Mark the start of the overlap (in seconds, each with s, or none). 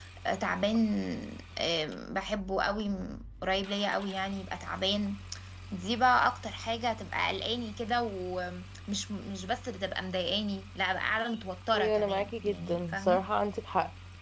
11.7 s